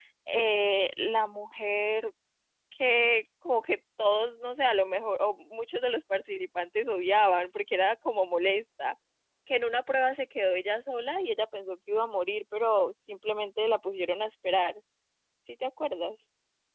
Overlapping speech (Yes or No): No